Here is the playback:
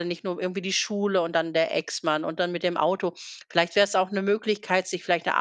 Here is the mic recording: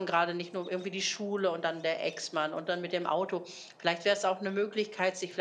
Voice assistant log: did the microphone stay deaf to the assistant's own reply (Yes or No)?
No